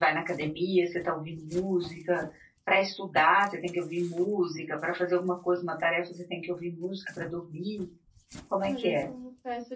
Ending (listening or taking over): taking over